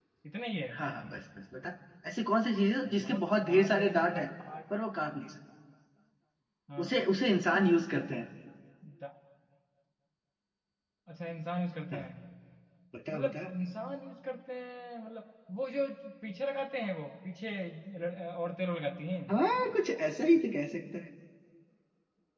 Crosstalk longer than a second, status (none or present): present